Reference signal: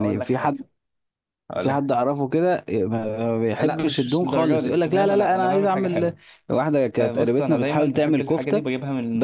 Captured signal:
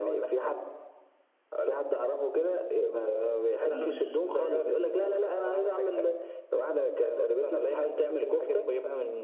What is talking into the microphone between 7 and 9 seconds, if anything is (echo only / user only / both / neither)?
echo only